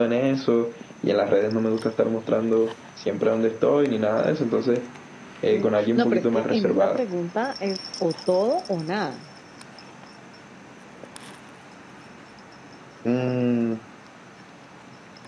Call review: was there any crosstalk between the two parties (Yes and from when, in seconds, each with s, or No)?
Yes, from 5.5 s